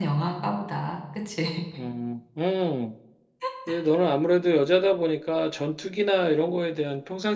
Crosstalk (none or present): none